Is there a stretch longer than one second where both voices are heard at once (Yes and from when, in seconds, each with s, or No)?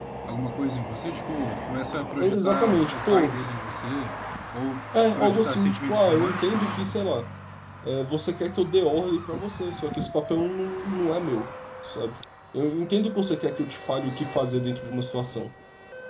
Yes, from 2.2 s